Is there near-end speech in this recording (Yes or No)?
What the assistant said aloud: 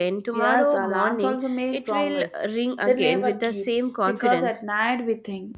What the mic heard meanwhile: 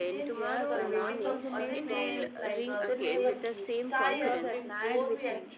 Yes